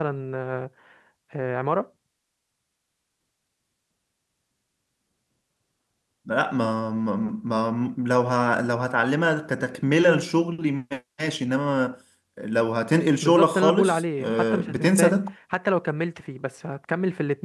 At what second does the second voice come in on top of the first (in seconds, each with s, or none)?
13.2 s